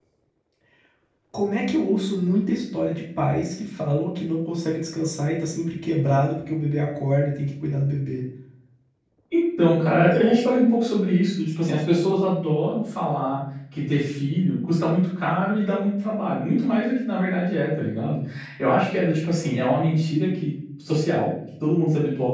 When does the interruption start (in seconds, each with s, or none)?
none